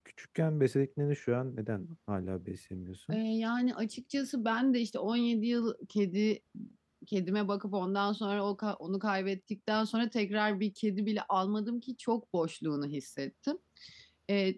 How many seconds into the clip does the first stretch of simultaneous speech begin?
none

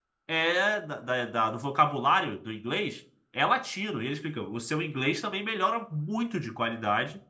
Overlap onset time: none

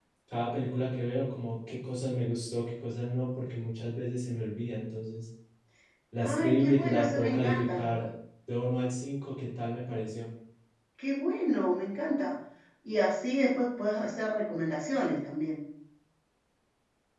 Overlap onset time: 6.2 s

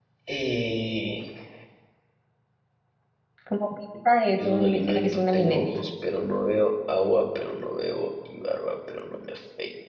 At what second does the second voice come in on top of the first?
4.4 s

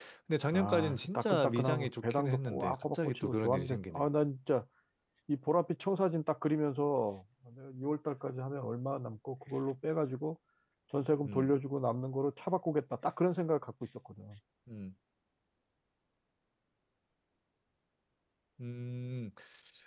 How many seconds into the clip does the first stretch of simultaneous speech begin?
0.5 s

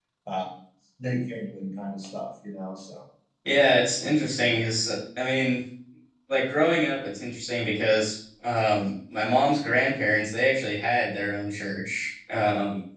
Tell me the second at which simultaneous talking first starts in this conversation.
none

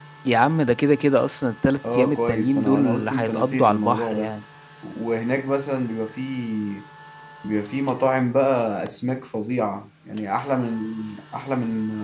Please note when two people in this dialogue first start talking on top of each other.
1.8 s

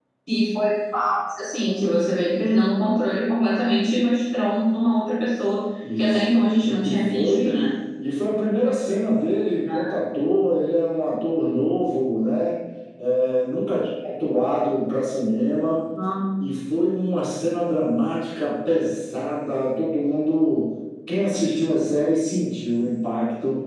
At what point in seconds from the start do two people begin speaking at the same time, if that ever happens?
5.8 s

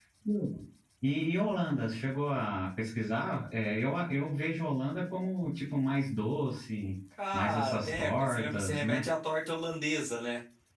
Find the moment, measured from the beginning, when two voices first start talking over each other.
7.2 s

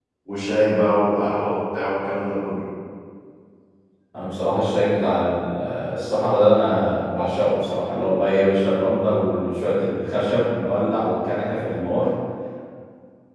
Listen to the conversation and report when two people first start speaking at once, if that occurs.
none

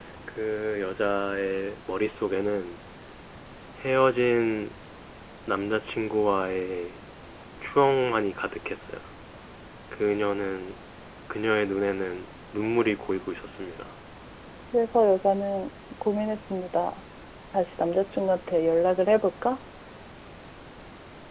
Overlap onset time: none

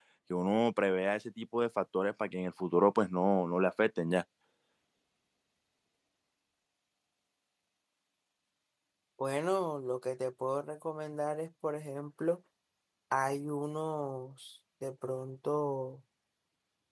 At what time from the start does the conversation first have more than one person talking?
none

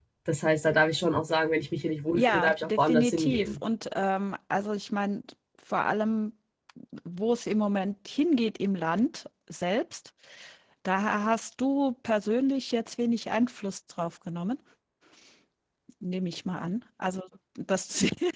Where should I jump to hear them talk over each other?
2.2 s

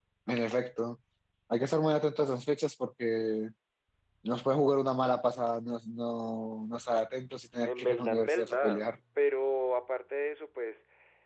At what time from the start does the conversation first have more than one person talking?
7.7 s

